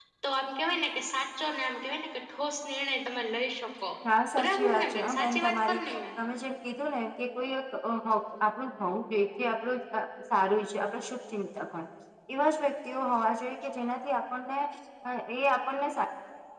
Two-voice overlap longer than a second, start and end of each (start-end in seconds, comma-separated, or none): 4.4-5.8